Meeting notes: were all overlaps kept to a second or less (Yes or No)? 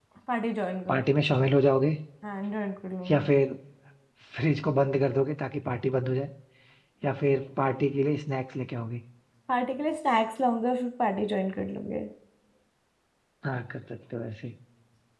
Yes